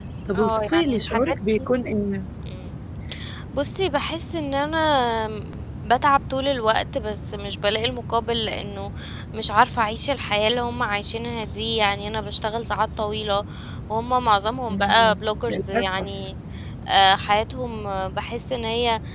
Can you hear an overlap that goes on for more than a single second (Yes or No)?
Yes